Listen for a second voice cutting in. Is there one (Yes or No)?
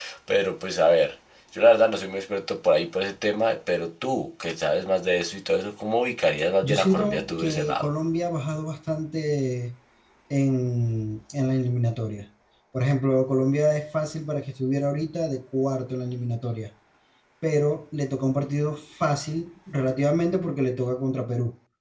Yes